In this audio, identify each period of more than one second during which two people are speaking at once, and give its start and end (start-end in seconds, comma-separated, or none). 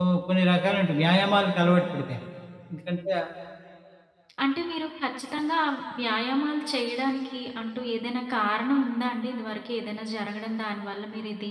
none